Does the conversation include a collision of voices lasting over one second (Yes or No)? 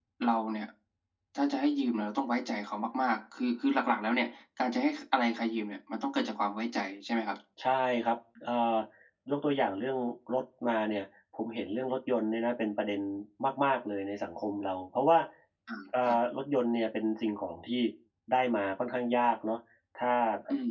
No